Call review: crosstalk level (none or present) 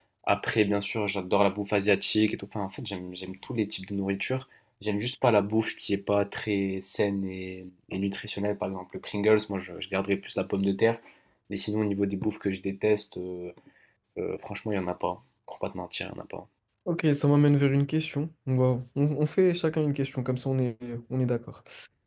none